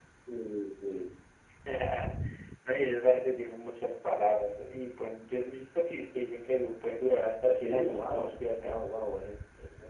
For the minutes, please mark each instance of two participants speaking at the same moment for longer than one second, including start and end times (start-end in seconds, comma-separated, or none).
7.5-8.8